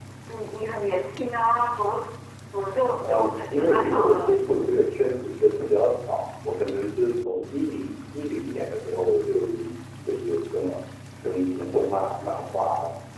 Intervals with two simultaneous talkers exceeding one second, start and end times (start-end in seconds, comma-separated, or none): 3.0-4.3